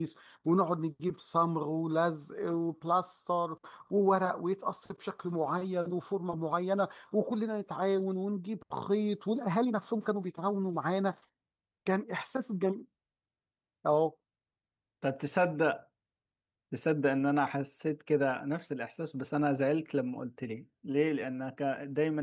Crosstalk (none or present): none